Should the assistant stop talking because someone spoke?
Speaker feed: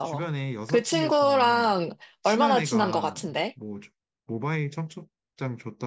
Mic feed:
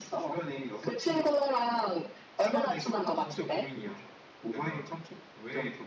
Yes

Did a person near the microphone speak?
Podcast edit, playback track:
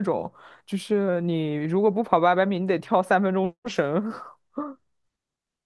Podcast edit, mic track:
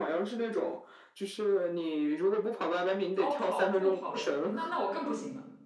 Yes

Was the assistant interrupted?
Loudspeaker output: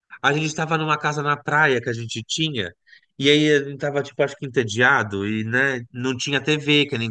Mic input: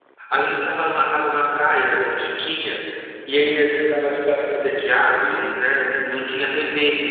No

